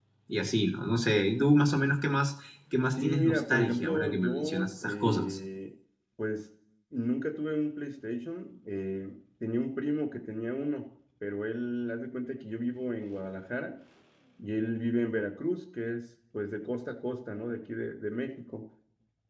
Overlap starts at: 3.0 s

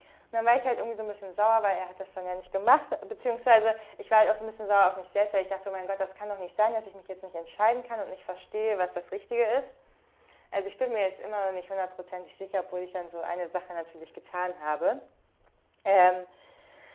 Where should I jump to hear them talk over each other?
none

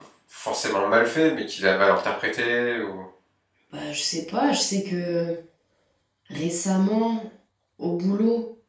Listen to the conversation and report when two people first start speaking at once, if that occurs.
none

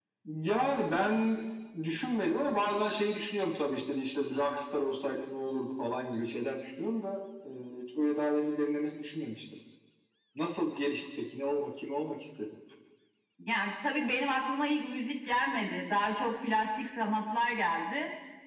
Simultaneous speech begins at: none

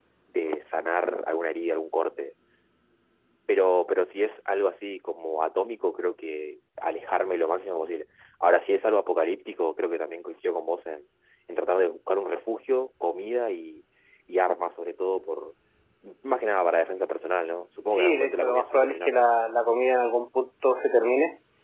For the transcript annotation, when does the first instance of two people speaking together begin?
17.9 s

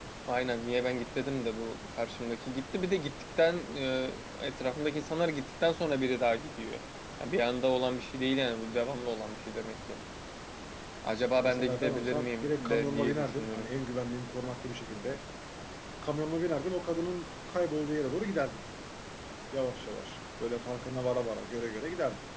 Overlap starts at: 11.4 s

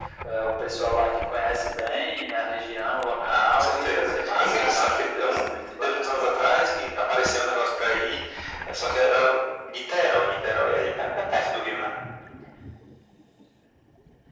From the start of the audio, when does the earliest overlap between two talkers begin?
3.2 s

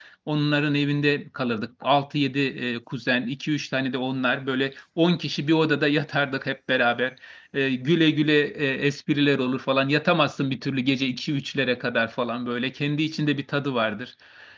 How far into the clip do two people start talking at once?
none

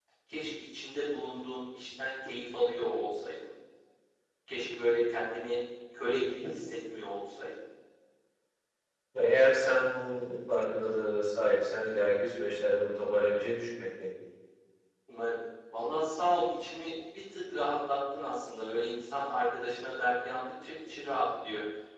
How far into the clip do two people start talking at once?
none

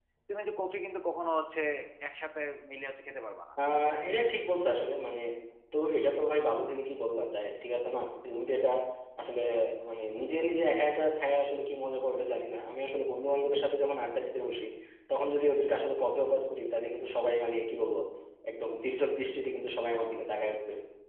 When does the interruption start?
none

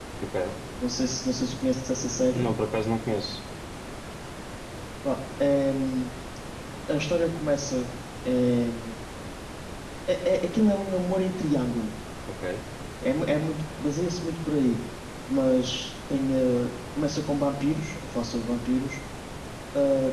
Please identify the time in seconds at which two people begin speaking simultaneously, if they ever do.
none

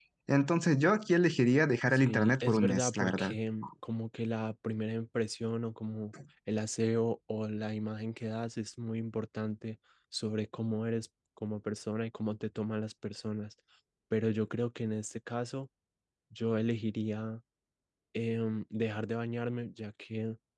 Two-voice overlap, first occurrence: 1.9 s

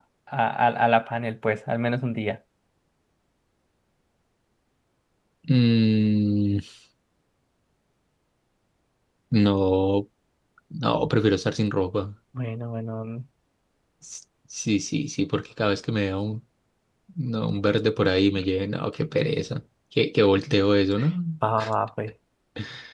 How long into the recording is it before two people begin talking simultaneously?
none

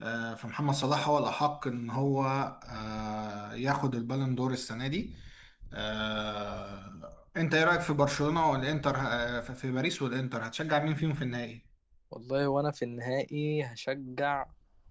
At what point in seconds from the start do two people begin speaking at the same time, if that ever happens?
none

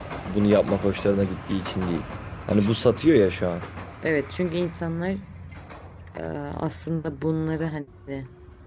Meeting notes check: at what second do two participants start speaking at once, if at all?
none

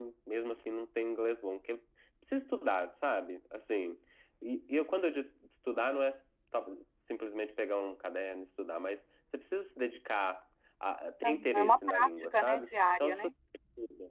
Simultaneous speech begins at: 11.2 s

